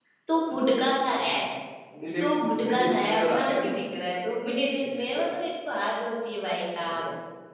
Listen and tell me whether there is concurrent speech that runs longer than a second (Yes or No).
Yes